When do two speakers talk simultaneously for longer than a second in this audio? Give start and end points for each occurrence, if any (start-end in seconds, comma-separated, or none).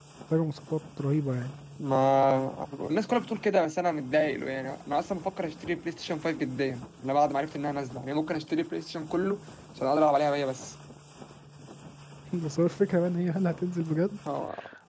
none